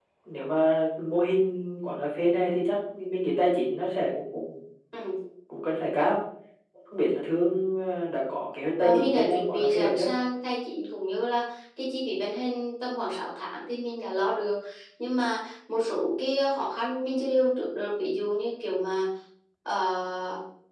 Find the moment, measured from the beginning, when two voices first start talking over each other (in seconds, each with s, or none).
8.8 s